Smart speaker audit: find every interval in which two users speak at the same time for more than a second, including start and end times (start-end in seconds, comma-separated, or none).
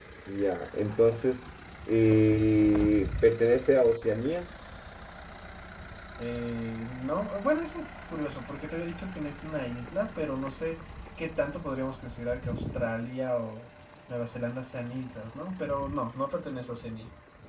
none